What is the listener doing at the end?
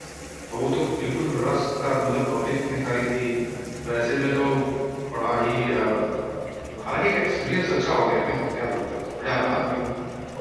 taking over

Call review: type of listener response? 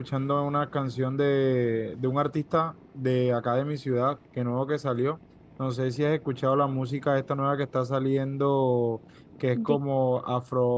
listening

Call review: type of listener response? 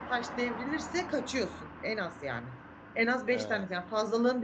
listening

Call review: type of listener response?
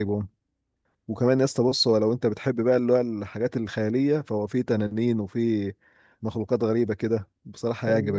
taking over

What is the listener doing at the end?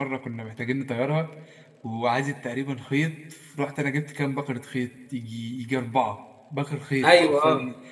listening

